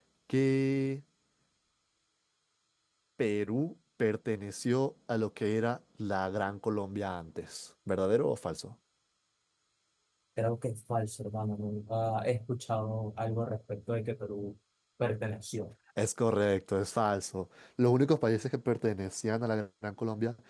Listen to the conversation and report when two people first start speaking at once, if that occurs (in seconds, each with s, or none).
none